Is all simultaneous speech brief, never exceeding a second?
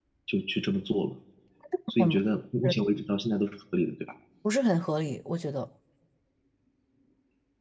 Yes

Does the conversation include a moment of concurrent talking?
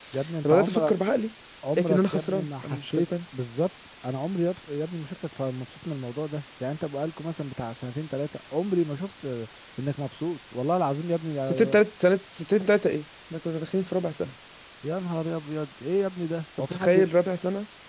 Yes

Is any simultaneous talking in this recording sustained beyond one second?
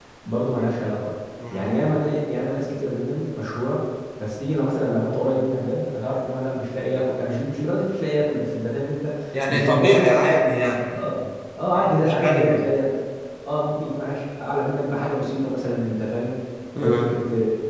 Yes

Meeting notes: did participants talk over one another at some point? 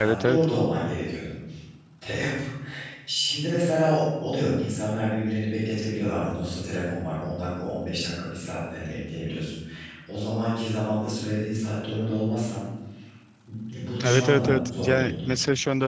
Yes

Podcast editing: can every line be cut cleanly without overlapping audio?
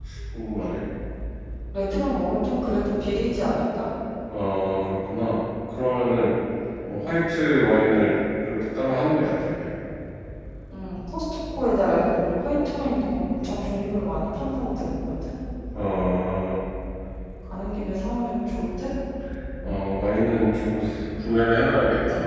Yes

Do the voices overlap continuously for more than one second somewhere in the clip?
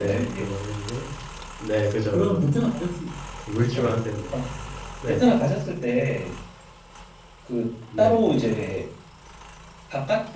No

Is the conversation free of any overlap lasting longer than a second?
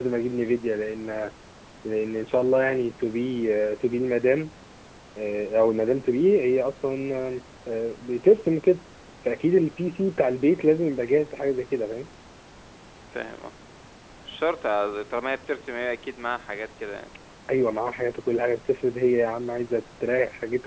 Yes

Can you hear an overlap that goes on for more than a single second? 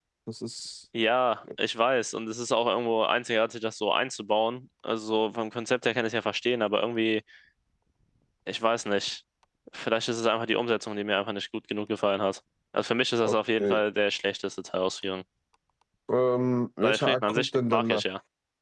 Yes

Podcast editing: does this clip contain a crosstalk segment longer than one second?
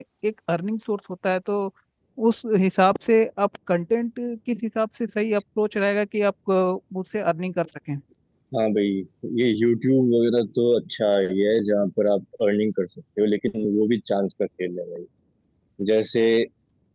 No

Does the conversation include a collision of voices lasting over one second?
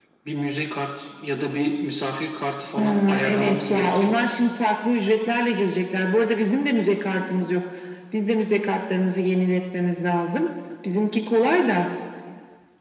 Yes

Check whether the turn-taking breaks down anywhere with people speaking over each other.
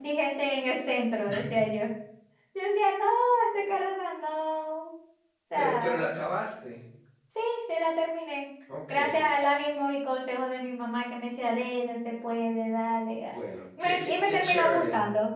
Yes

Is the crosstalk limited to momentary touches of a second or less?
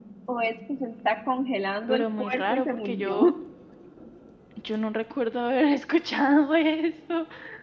No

